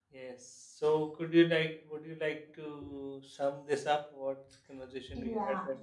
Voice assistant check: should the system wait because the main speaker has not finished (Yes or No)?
No